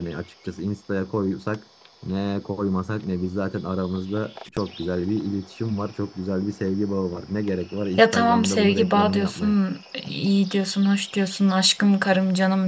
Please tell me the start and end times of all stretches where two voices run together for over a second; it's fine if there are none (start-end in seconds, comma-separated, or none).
8.0-9.6